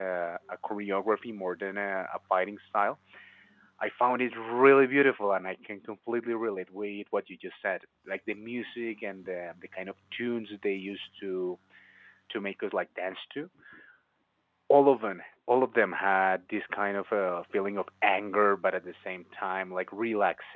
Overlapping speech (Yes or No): No